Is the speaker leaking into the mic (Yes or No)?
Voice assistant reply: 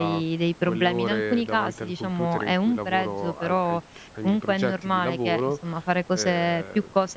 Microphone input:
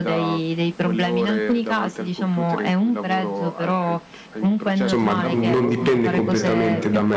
Yes